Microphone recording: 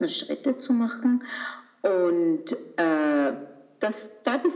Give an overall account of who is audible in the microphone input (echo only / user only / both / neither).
echo only